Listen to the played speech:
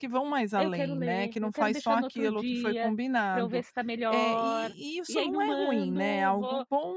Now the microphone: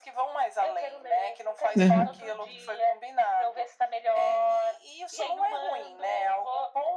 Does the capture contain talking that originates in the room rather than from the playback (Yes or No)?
Yes